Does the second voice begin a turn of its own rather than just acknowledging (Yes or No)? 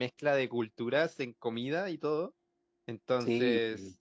No